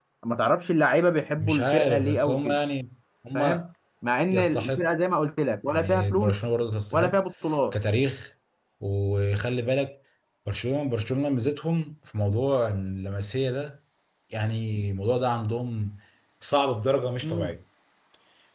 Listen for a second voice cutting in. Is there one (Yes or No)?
Yes